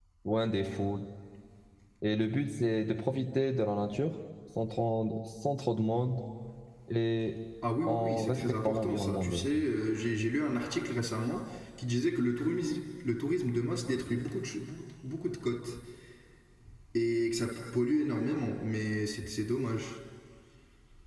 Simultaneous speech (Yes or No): Yes